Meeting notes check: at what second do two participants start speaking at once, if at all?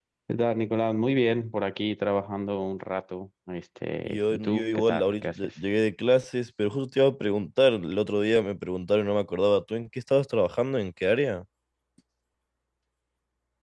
4.0 s

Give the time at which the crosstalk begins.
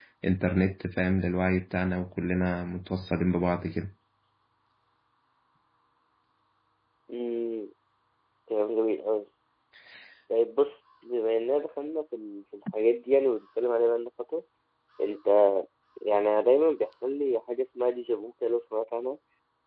none

